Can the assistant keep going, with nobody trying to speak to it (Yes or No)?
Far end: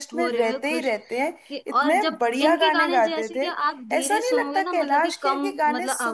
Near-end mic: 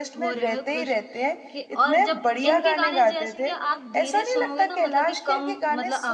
Yes